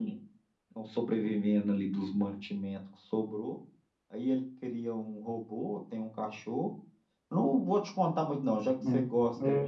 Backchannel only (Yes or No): Yes